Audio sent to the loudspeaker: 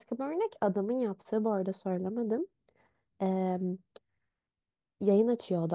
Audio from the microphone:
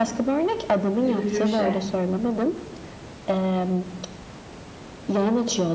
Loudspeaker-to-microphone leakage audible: Yes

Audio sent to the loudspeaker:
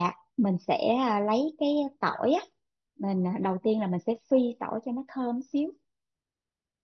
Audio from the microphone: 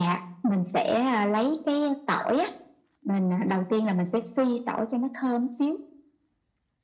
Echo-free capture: No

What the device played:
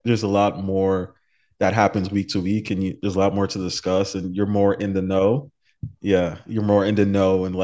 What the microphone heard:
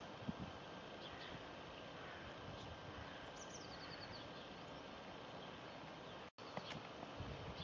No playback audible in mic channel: Yes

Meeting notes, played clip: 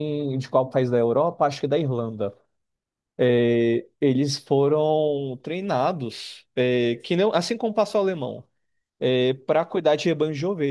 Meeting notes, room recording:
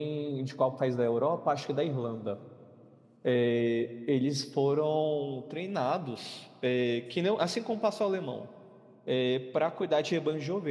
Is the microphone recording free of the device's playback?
No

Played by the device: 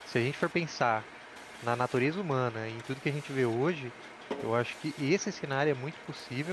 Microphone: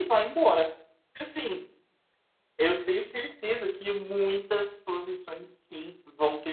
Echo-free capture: Yes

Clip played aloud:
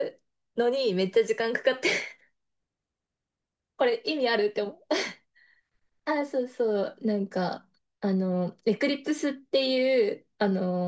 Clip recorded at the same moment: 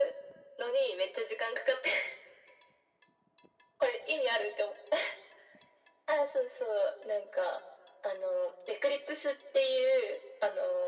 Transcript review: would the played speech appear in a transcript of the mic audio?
Yes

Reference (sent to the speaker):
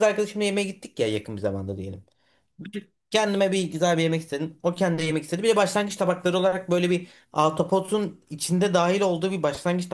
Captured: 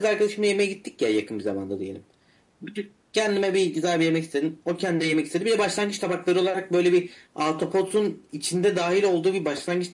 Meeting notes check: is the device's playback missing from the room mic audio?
No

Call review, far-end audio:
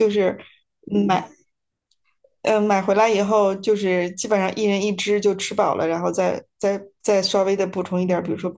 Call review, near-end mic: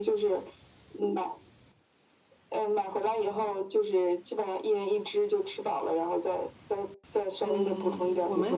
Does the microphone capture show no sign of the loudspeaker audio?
No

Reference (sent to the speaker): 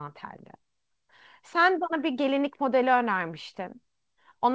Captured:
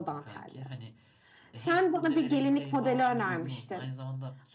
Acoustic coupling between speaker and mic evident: Yes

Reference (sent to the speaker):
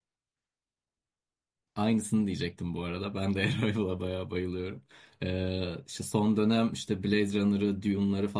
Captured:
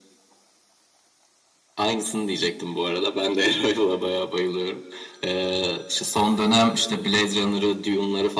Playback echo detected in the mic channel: Yes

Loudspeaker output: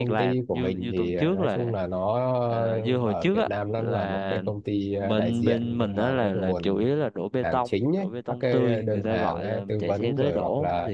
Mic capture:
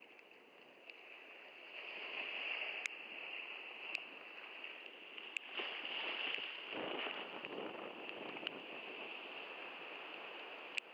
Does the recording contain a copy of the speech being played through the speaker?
No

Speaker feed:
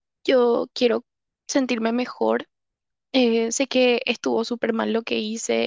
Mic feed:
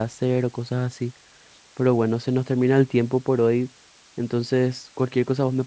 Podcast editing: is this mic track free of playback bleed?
Yes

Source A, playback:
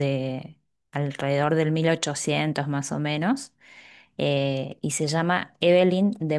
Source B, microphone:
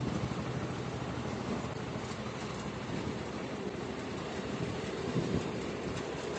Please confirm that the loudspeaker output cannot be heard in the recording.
Yes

